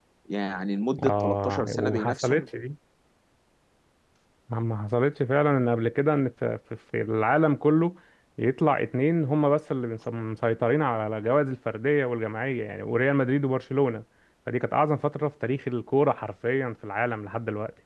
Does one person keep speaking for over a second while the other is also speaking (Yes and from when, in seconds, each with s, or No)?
Yes, from 1.0 s